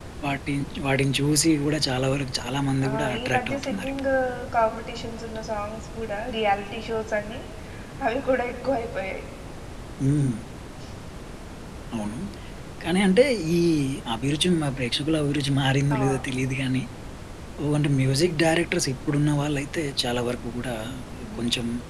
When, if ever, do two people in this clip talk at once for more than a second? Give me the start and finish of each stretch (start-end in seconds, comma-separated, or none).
2.9-4.1